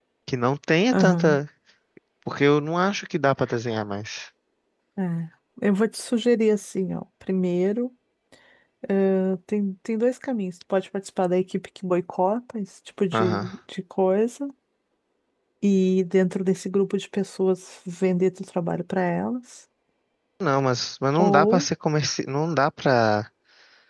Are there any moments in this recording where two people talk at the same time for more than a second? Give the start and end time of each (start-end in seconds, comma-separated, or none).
none